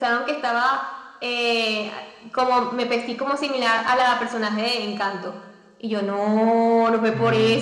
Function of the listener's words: listening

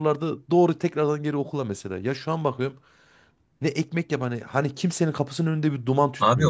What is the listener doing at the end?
taking over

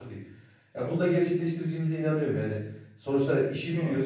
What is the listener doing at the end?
listening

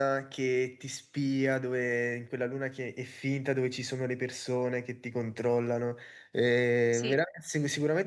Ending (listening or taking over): listening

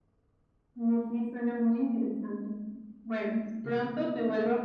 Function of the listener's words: listening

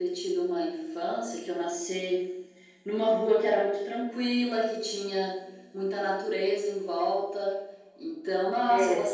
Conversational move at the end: listening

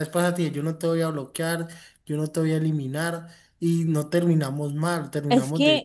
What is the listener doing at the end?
taking over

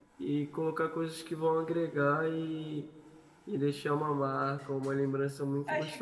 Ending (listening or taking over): taking over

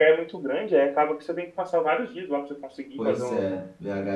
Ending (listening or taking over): taking over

